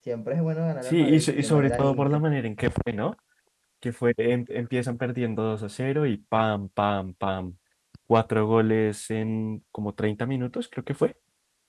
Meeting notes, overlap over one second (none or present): present